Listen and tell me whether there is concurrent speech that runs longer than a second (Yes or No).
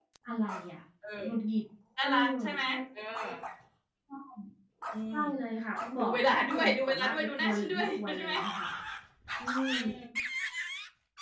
Yes